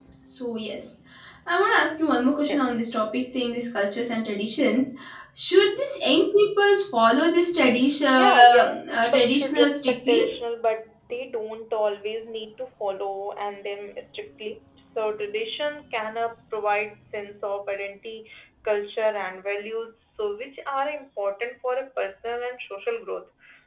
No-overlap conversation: No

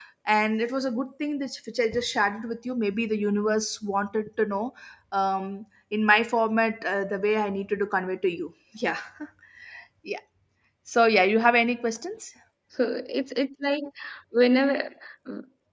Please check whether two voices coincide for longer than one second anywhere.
No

